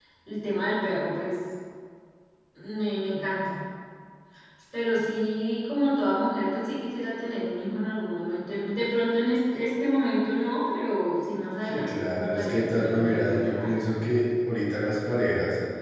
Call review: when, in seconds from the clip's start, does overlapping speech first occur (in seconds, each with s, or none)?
11.6 s